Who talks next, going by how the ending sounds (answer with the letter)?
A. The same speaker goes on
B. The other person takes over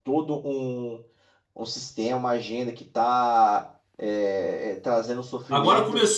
B